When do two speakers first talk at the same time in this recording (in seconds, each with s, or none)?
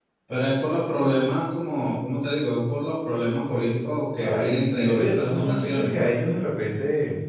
4.2 s